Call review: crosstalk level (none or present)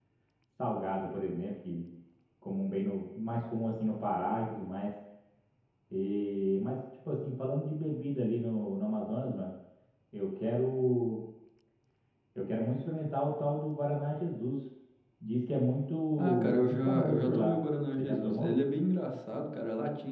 present